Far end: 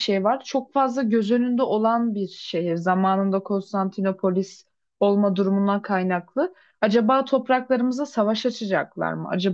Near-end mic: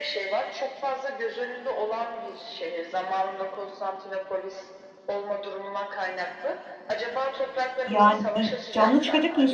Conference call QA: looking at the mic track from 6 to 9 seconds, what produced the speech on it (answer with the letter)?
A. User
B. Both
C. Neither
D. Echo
B